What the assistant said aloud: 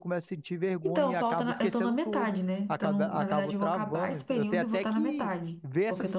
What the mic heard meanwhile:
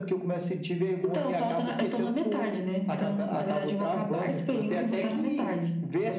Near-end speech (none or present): none